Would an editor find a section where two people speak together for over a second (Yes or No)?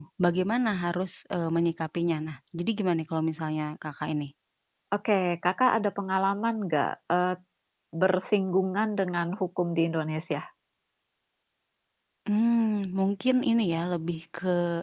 No